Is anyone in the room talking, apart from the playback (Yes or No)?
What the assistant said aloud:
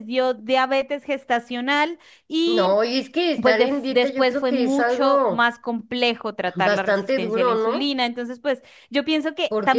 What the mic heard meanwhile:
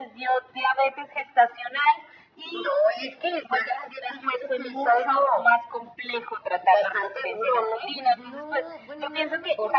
Yes